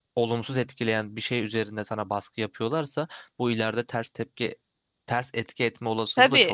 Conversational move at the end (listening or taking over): taking over